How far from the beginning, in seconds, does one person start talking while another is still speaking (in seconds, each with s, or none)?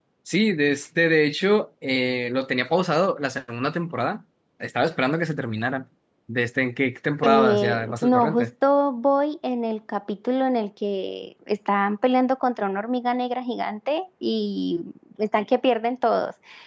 7.2 s